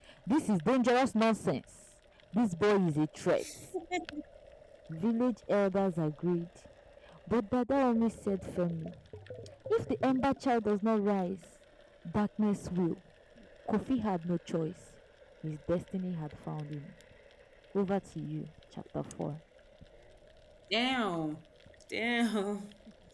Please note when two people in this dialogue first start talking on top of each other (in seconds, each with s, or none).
none